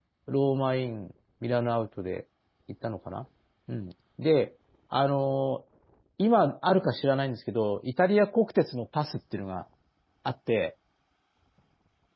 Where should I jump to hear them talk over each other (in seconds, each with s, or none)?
none